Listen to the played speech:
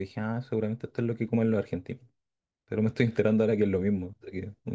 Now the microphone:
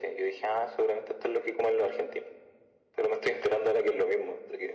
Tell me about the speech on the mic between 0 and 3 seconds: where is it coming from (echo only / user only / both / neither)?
echo only